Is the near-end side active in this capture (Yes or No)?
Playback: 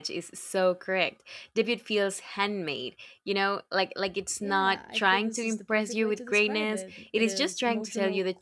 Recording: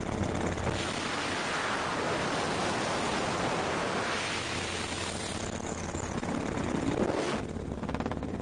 No